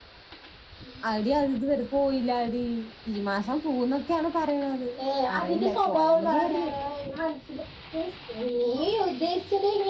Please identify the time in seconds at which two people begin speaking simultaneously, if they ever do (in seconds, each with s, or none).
5.4 s